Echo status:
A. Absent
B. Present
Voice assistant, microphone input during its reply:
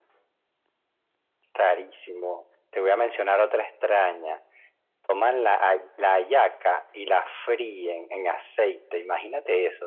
B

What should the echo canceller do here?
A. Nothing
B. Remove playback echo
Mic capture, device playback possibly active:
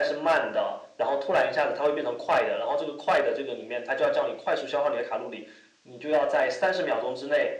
B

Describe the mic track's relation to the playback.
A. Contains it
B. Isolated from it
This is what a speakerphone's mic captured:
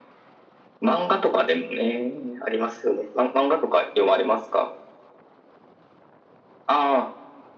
A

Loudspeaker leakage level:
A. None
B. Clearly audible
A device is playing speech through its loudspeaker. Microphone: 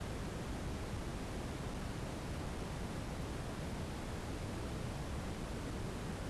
A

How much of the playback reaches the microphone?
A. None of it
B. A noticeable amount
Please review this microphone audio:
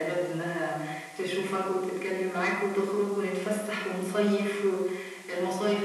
B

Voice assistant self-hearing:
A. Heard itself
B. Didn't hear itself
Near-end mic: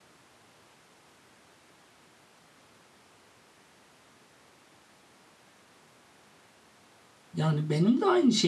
B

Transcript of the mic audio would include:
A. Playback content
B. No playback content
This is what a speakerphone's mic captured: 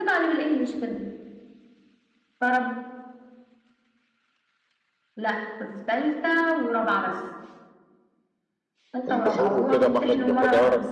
A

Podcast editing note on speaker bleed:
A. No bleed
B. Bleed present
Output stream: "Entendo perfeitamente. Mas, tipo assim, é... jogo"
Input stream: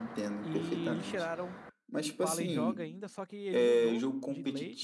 B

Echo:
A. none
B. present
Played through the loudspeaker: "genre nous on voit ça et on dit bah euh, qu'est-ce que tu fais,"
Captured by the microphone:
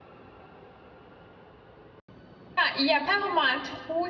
A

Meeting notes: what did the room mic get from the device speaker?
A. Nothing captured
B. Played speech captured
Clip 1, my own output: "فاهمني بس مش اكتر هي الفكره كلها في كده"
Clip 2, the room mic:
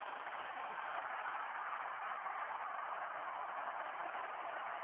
A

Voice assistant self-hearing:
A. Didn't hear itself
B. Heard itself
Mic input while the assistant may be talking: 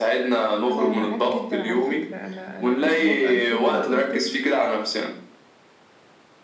B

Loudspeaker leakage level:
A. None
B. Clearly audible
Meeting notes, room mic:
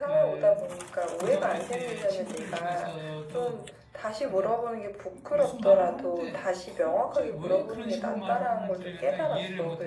B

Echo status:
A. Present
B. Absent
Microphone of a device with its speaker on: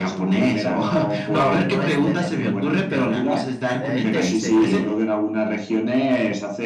A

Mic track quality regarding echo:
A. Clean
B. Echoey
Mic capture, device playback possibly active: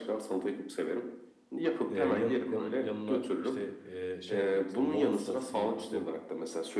B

